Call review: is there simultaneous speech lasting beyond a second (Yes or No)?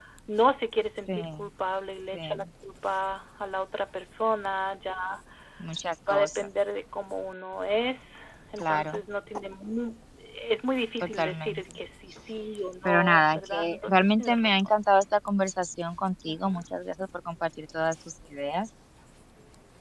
Yes